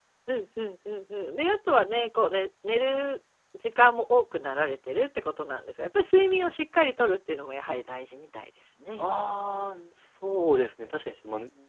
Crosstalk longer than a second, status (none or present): none